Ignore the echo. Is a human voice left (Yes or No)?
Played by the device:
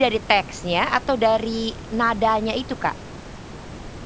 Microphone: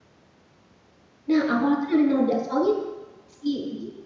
Yes